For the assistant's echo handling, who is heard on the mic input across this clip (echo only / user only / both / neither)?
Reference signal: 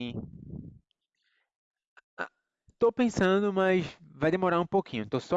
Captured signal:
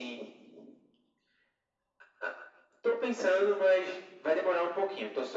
echo only